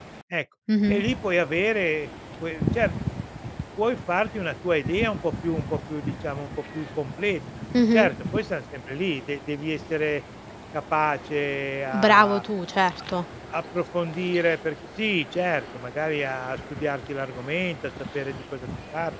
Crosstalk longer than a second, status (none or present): none